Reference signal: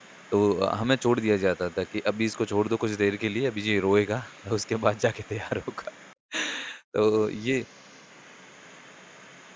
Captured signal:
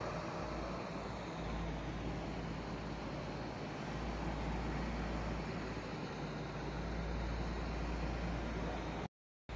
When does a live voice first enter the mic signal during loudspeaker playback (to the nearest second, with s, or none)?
none